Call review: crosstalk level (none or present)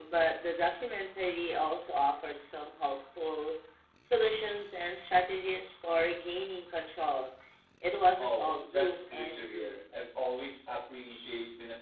present